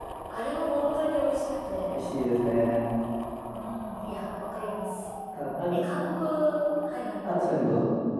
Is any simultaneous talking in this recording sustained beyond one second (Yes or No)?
No